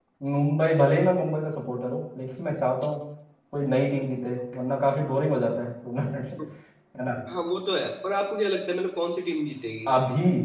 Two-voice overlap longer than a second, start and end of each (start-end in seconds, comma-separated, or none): none